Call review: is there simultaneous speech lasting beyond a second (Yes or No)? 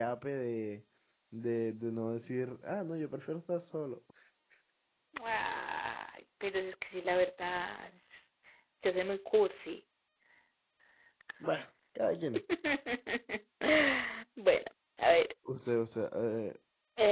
No